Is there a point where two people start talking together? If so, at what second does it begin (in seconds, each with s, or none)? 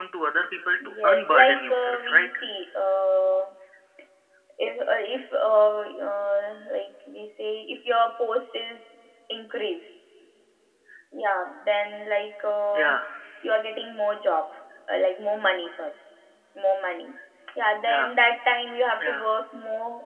1.0 s